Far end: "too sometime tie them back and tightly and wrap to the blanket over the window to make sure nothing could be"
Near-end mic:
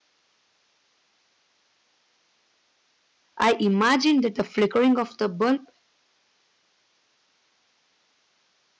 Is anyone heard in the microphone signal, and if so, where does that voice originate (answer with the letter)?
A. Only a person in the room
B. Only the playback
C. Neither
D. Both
A